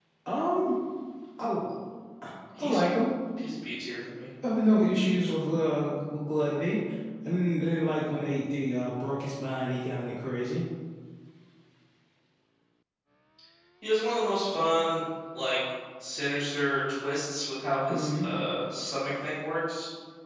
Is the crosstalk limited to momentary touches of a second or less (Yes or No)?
Yes